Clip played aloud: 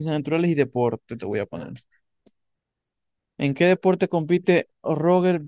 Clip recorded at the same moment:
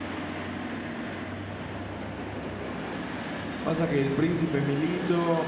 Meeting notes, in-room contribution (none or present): present